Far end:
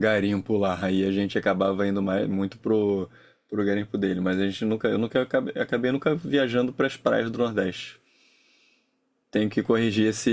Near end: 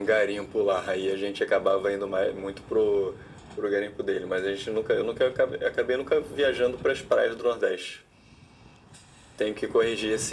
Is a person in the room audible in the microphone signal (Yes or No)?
No